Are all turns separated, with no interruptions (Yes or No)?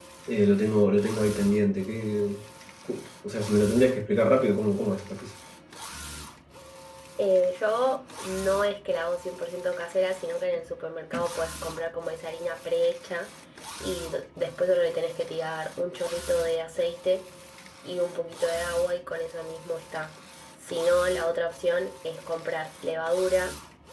Yes